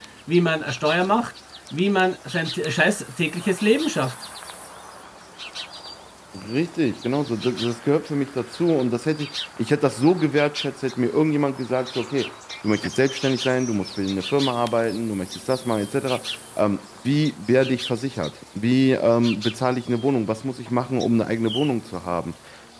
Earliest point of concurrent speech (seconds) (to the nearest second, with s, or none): none